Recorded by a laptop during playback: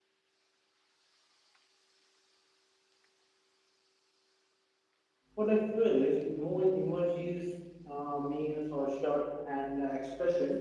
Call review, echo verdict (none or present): none